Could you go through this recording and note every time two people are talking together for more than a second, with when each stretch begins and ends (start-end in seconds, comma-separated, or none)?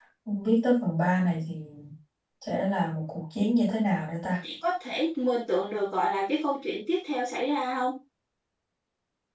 none